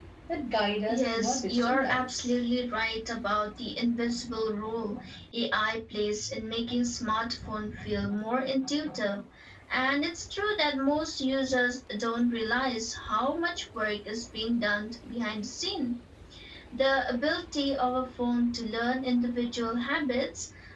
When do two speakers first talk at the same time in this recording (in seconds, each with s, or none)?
0.9 s